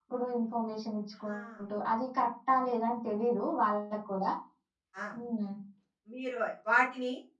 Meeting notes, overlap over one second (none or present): none